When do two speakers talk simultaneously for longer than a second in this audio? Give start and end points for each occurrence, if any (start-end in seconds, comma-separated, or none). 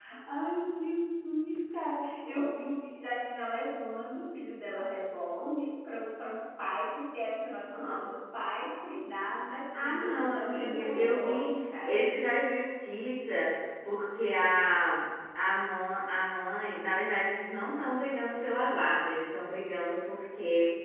9.8-12.0